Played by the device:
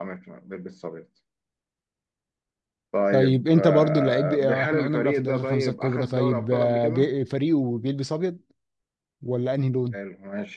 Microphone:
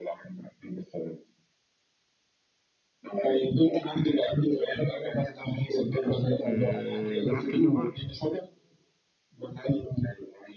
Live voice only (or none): آه، بيلعب في الليفر؟